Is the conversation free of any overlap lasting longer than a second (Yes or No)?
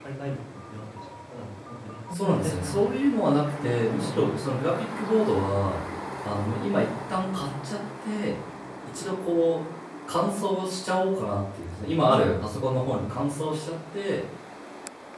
No